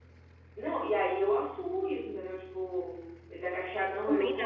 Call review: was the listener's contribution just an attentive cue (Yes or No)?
Yes